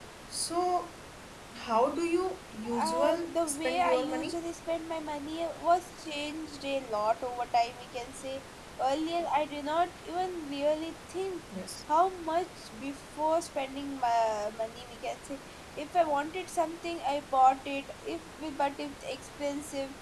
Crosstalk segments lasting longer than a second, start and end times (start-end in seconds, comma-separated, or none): 2.8-4.4